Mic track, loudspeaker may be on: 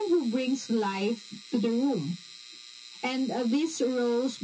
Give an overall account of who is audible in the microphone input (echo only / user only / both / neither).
echo only